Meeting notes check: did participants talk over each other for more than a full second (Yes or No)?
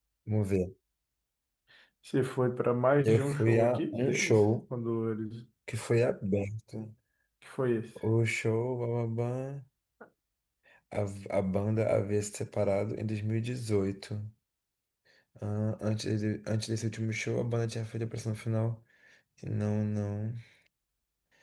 Yes